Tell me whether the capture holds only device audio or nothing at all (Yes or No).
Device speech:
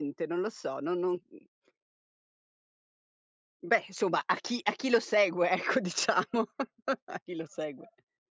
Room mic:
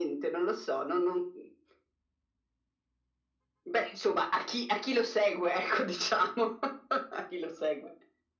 Yes